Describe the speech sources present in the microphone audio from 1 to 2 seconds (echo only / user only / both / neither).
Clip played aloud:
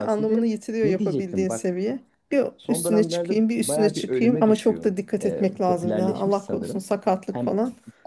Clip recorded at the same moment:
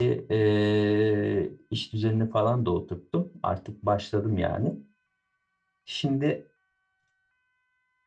user only